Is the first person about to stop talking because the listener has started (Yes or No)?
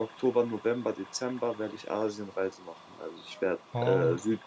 No